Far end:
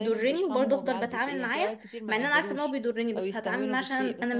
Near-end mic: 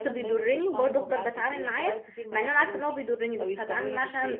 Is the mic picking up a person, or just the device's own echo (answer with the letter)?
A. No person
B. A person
A